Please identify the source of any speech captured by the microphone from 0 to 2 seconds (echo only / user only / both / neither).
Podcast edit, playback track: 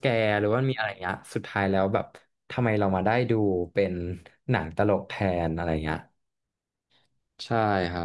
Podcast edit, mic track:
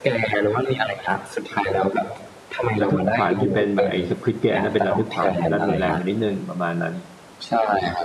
echo only